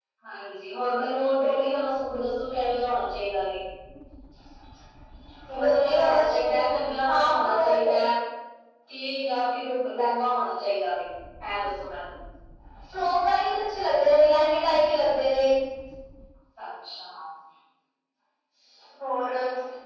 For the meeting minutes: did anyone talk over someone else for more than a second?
Yes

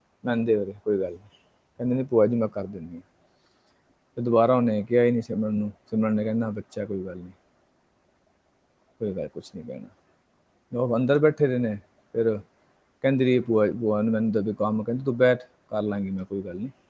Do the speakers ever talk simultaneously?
No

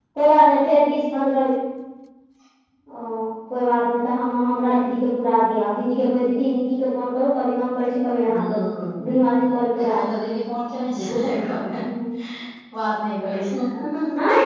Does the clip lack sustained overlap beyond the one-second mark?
Yes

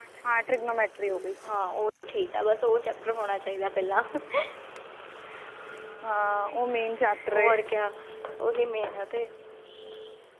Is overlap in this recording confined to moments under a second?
Yes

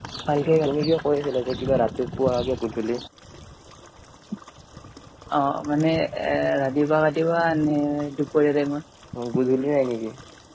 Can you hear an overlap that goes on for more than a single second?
No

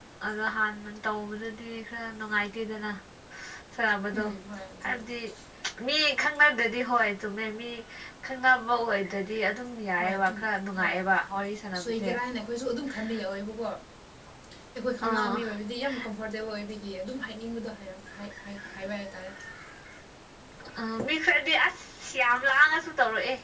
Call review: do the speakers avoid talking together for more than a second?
Yes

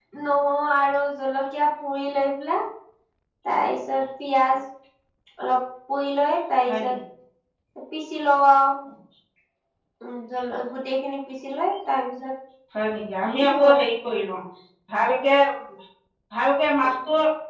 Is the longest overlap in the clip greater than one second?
No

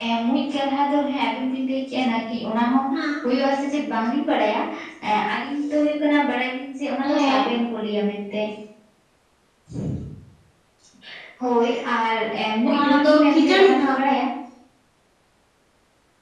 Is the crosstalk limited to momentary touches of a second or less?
No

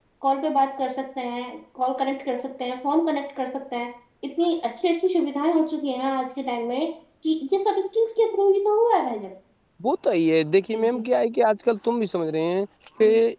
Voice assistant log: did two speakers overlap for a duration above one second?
No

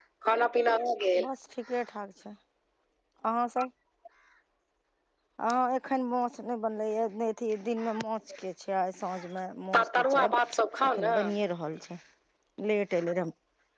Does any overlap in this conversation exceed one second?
No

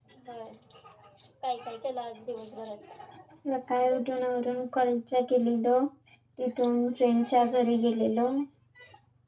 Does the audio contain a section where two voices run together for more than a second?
No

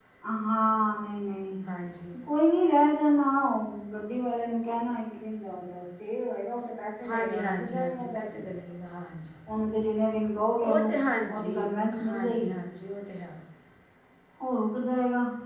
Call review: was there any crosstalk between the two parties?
Yes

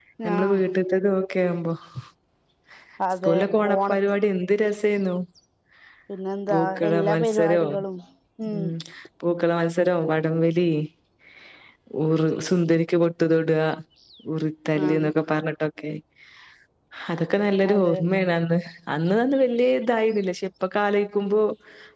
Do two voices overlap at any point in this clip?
Yes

